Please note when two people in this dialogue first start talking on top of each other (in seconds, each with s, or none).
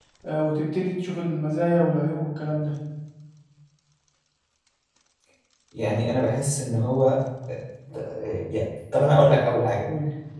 none